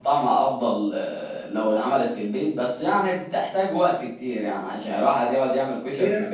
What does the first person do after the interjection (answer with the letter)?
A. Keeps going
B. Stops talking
B